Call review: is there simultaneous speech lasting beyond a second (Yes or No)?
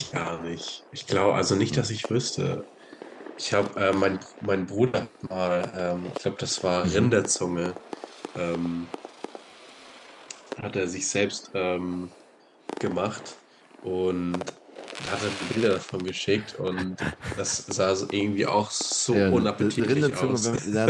Yes